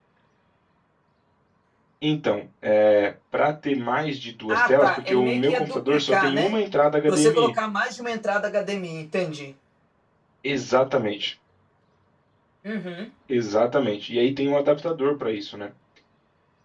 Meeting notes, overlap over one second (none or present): present